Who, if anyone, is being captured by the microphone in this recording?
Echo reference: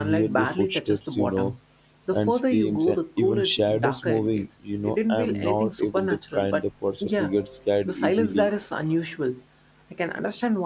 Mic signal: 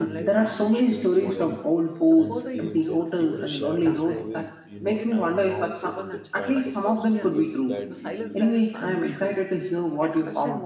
both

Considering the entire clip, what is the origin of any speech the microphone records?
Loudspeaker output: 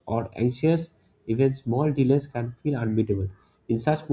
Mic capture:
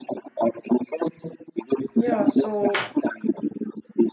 both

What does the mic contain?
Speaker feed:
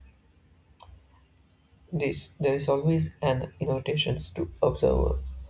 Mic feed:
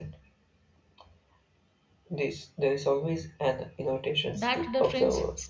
both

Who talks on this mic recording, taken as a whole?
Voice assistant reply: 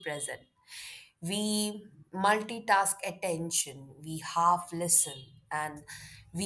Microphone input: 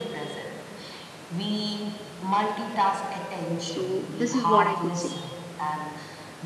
both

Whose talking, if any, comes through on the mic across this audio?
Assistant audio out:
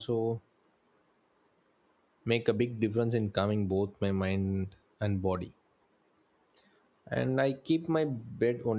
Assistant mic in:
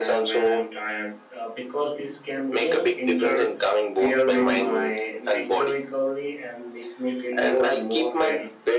both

